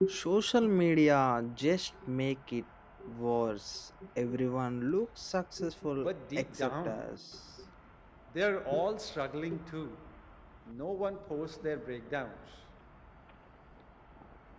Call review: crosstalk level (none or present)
present